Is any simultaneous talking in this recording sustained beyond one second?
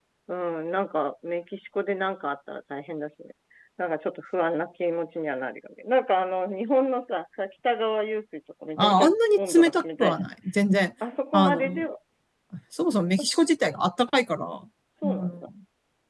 Yes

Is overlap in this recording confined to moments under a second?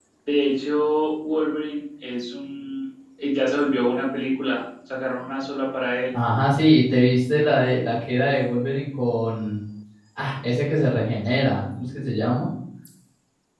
Yes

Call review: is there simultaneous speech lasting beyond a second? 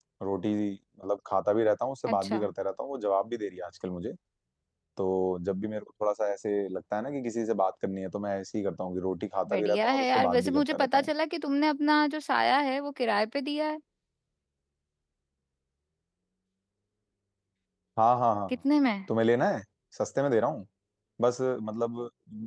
Yes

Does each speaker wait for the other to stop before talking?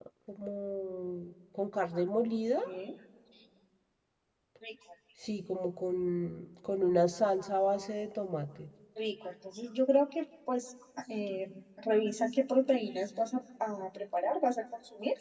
Yes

